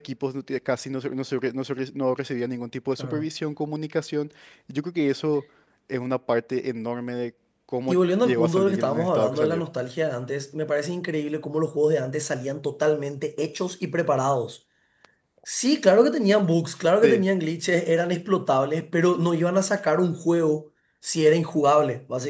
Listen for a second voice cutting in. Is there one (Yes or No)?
Yes